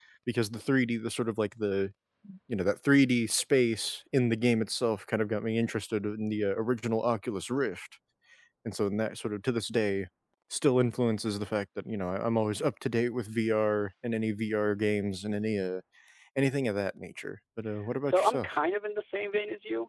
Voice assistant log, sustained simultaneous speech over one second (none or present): none